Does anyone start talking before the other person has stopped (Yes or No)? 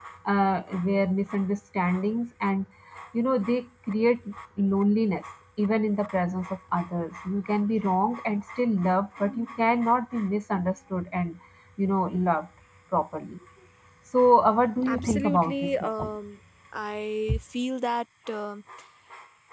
Yes